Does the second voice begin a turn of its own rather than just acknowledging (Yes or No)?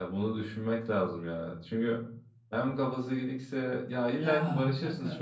No